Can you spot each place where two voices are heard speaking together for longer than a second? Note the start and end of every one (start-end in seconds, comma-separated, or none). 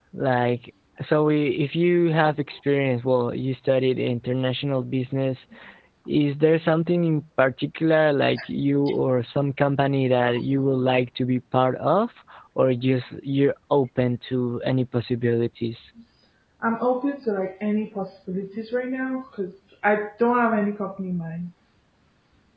none